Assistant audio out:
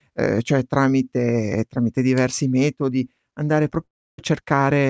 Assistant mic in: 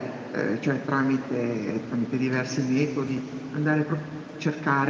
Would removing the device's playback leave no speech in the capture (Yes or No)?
Yes